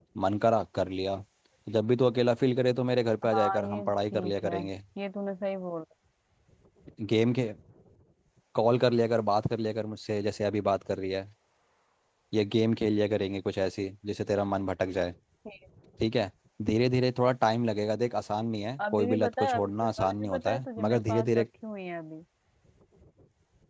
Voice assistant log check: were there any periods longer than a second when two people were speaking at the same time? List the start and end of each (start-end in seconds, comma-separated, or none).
3.3-4.6, 18.9-21.4